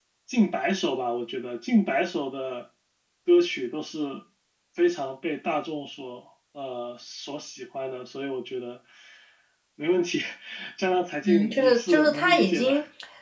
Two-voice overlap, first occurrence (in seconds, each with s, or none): 11.2 s